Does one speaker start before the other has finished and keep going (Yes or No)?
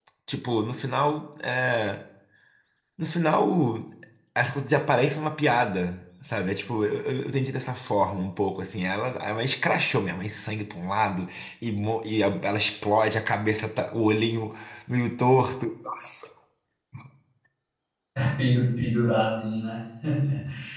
No